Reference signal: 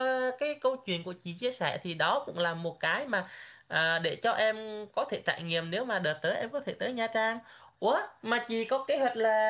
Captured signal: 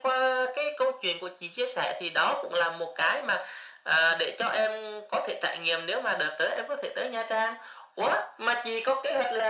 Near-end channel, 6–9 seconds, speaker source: echo only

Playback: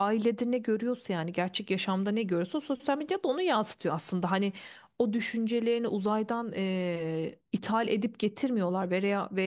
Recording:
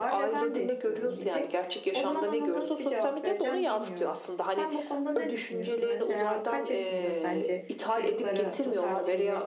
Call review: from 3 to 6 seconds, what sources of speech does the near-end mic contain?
both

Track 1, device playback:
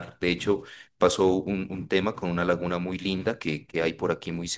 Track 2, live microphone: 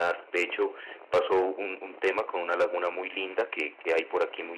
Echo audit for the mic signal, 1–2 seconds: echo only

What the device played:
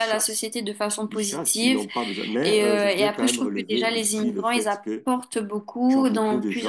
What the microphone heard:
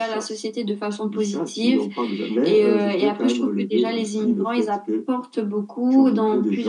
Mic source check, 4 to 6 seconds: echo only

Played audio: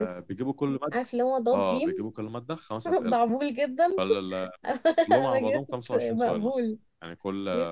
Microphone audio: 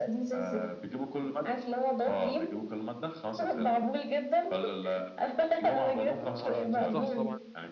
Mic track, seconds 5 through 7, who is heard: both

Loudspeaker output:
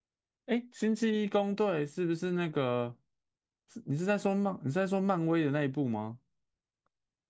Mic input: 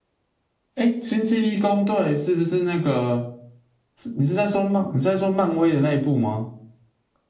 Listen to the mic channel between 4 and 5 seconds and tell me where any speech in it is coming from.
echo only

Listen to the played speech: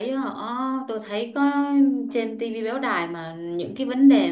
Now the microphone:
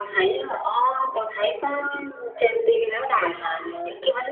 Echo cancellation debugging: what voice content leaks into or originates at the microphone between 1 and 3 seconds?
echo only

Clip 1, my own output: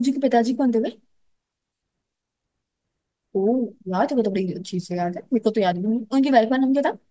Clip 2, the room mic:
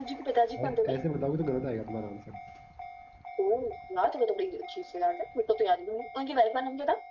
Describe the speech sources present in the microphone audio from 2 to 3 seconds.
user only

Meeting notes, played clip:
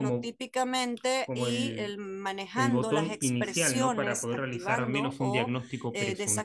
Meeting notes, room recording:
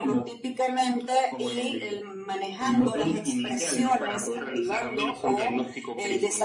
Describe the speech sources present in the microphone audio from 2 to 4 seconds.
echo only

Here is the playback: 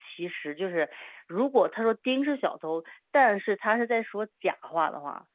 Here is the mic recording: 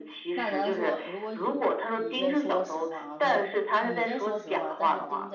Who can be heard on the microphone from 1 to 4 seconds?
both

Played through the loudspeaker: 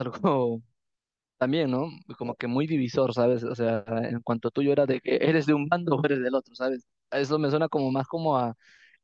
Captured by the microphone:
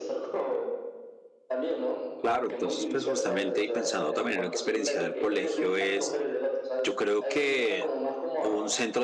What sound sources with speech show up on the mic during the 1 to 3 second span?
both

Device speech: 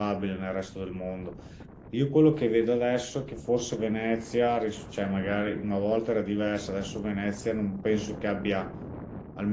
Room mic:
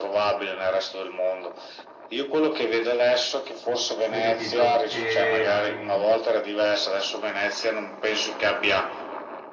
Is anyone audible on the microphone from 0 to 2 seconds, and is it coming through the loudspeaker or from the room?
echo only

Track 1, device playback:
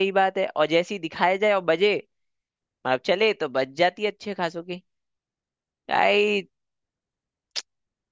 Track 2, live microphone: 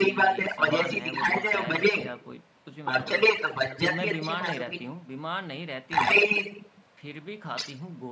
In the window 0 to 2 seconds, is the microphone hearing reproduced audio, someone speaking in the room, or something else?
both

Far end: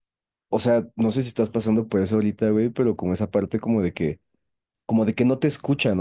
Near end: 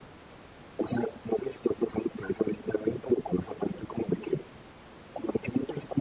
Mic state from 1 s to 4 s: echo only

